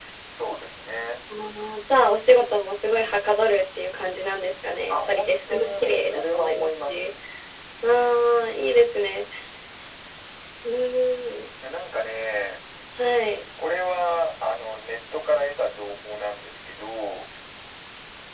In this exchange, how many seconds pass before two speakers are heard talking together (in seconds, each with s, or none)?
4.9 s